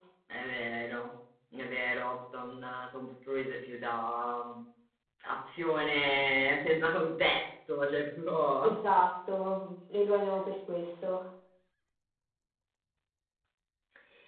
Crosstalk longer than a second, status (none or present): none